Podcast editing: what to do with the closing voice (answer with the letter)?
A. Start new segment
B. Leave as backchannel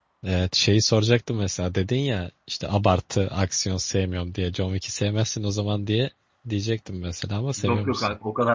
A